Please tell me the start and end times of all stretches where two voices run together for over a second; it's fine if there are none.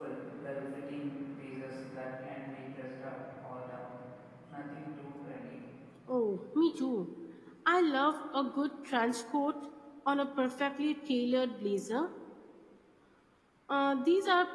none

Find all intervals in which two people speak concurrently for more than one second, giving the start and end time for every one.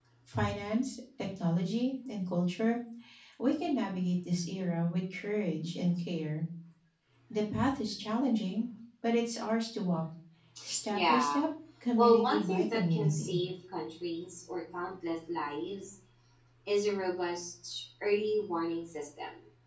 12.0-13.3

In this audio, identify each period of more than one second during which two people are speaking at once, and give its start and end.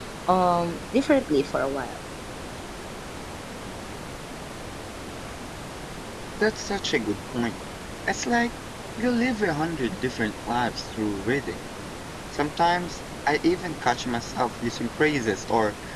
none

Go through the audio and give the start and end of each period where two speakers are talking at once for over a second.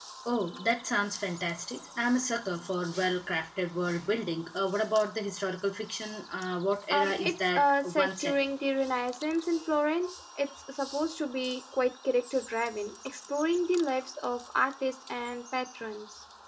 6.9-8.5

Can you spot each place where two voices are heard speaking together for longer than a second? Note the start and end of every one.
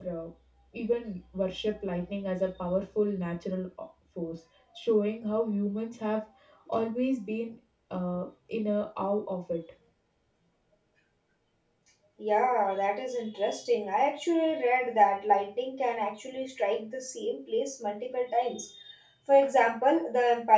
none

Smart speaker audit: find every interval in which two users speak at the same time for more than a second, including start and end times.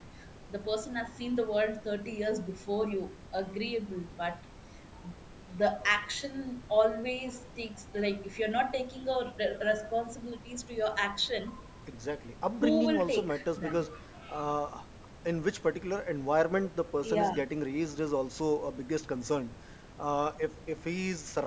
12.6-13.8

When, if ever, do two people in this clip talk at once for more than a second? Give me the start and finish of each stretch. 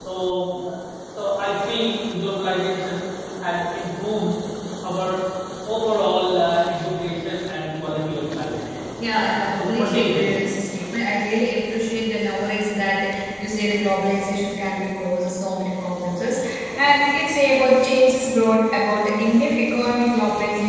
9.1-10.3

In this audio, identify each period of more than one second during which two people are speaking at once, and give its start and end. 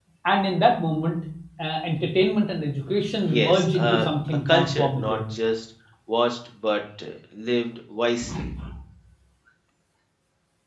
3.3-5.2

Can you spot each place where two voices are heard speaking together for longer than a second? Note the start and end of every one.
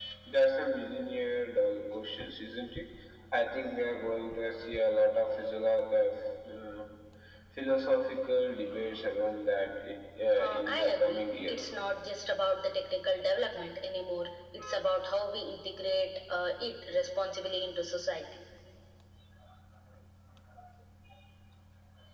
10.3-11.6

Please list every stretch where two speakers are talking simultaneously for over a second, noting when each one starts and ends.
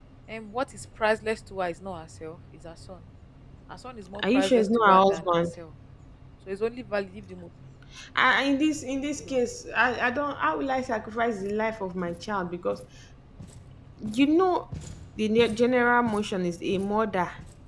4.2-5.4

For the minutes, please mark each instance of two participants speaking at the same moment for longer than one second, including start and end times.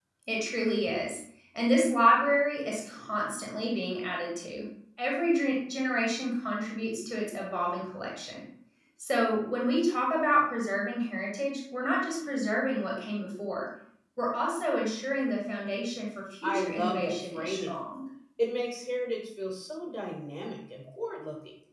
16.4-17.7

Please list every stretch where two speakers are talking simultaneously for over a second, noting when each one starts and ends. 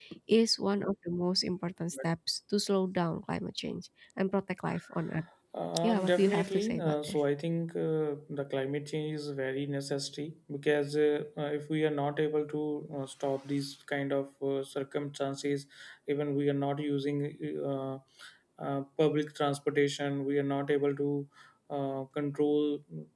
5.8-7.2

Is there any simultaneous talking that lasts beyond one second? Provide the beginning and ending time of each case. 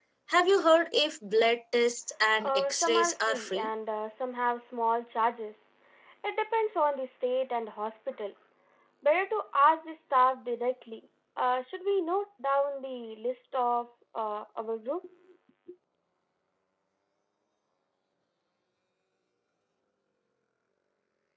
2.4-3.7

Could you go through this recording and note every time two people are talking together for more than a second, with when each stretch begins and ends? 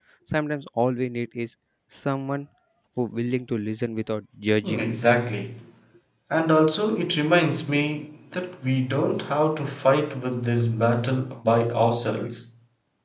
none

